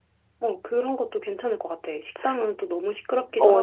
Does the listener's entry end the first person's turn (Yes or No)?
Yes